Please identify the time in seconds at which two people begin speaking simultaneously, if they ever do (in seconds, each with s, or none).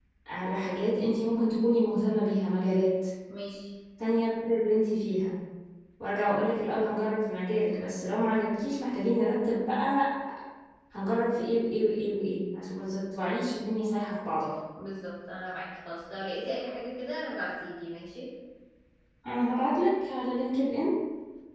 none